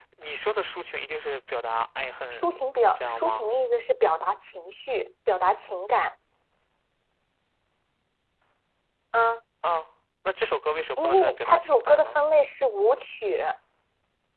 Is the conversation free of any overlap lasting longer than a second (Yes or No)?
No